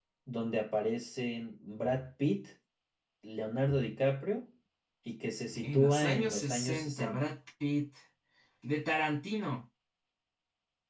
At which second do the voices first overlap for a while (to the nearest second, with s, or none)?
6 s